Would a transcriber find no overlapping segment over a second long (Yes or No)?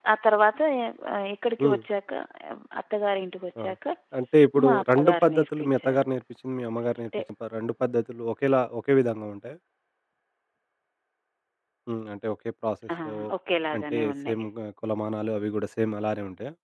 No